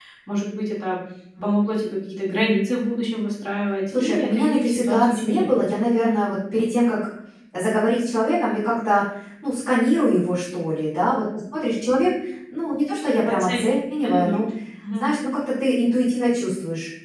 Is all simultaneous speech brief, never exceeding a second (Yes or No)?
No